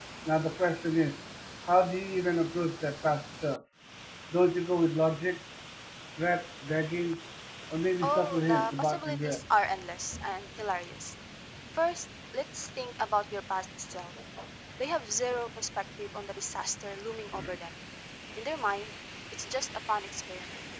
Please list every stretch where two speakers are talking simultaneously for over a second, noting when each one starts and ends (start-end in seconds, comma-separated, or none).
8.0-9.4